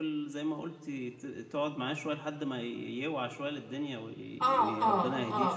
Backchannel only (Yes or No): No